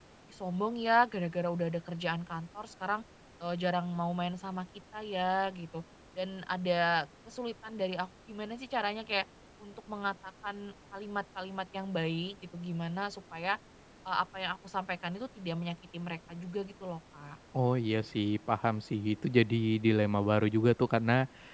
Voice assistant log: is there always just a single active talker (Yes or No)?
Yes